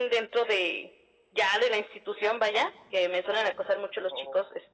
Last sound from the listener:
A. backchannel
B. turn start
A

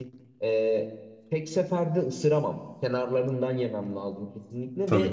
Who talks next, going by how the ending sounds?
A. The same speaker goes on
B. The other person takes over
B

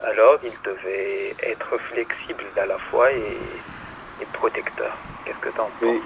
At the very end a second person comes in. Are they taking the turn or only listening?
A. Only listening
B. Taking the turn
B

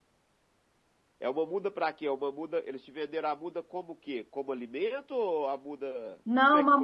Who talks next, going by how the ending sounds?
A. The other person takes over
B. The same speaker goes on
A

